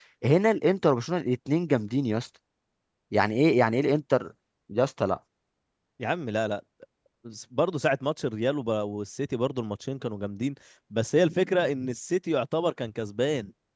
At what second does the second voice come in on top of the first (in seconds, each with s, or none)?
none